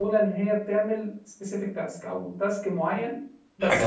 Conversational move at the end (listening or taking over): taking over